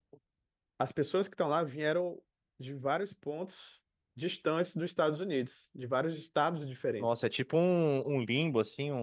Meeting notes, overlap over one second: none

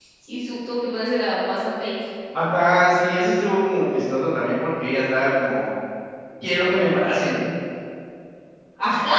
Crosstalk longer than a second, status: none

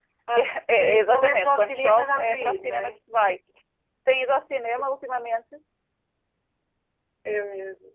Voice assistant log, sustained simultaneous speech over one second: present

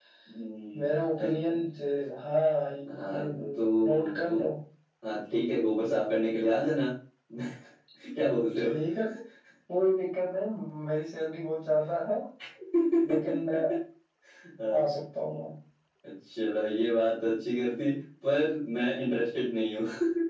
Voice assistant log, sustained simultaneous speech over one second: present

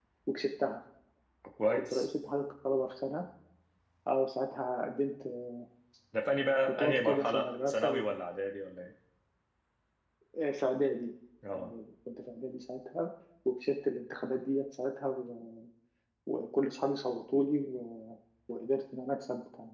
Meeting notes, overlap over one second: present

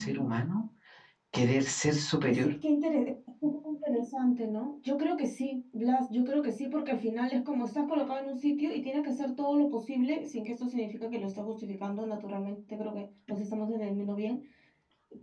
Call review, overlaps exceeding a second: none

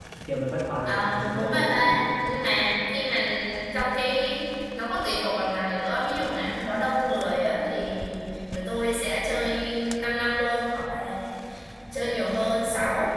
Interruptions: present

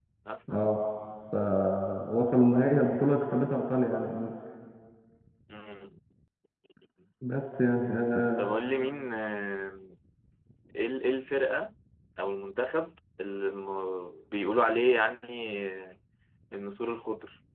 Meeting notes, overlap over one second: none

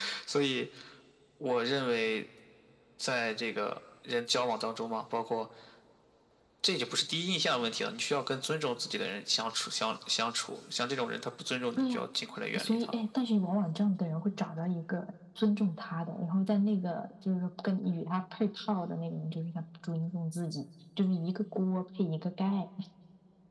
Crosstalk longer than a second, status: none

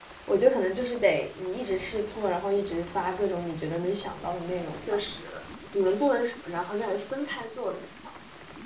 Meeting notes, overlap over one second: none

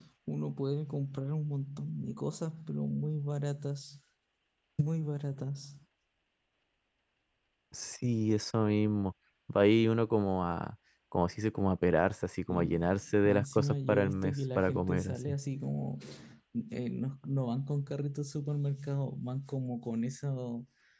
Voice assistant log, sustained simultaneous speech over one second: present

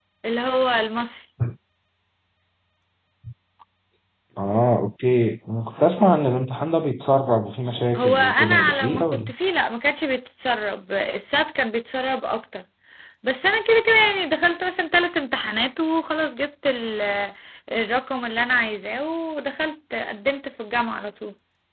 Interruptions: present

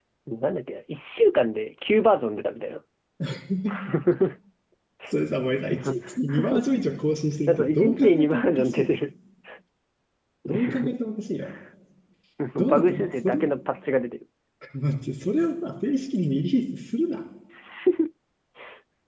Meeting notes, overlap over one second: present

